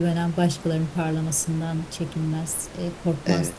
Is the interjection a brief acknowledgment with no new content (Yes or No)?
Yes